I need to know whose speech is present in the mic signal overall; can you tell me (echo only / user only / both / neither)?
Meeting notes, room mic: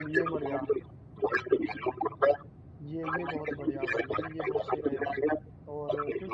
both